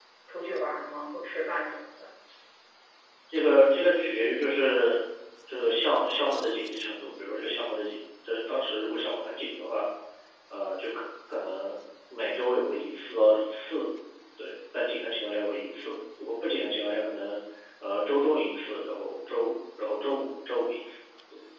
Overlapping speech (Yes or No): No